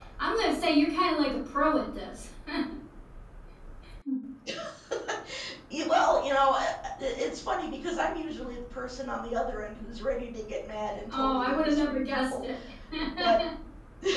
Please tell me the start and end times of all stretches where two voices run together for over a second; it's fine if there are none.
11.1-12.4

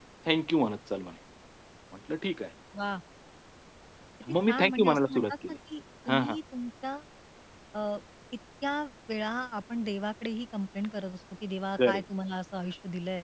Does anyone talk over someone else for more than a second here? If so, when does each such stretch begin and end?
4.3-5.6

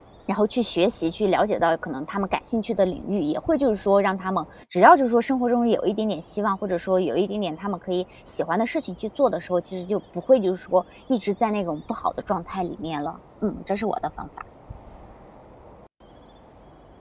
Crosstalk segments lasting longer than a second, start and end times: none

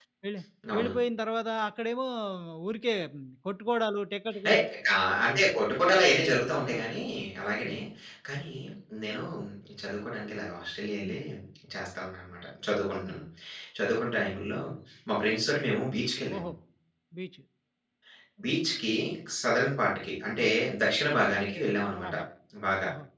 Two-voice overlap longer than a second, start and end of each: none

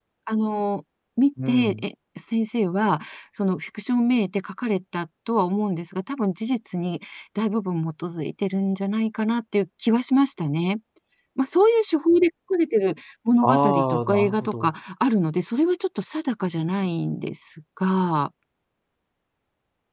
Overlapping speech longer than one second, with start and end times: 13.4-14.7

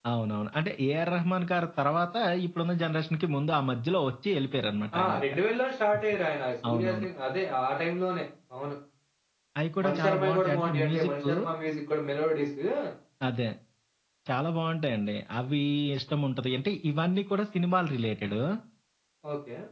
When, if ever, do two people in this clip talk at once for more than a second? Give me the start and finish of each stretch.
9.8-11.3

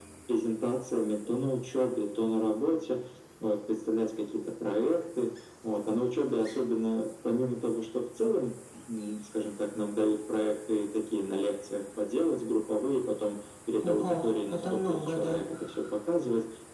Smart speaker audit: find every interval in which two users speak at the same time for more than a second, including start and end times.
13.8-15.5

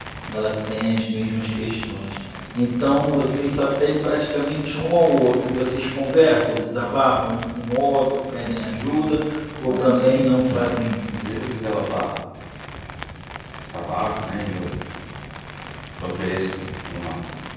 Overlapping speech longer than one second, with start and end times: none

